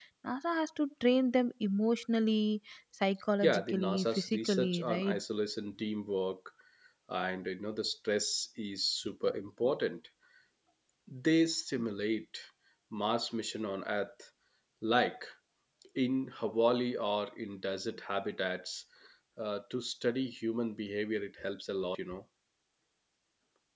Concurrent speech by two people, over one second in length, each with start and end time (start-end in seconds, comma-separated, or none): 3.4-5.2